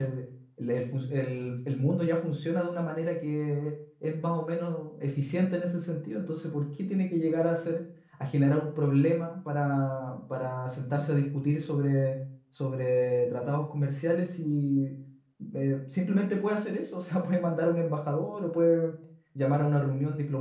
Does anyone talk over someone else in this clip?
No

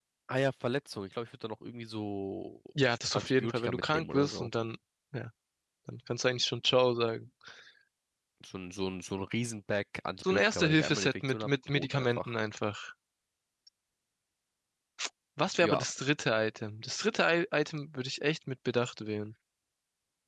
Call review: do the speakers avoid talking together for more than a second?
No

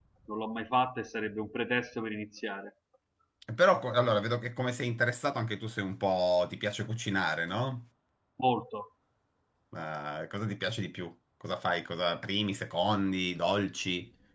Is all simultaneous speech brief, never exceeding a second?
Yes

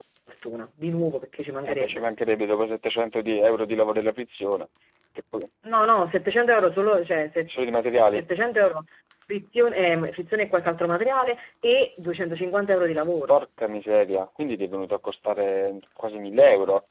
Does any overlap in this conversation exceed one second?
No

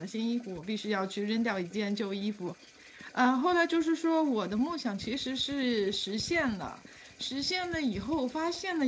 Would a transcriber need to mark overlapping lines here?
No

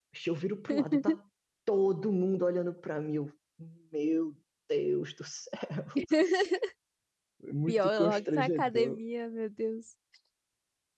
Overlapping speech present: Yes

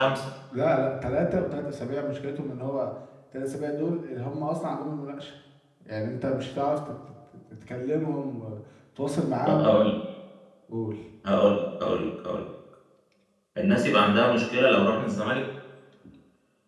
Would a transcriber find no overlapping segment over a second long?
Yes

